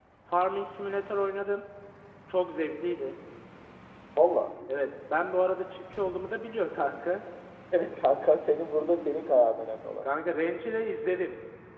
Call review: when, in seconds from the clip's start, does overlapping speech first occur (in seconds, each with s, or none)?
none